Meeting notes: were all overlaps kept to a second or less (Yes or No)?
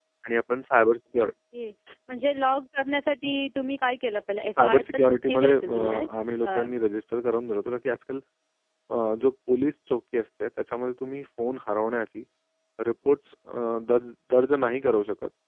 No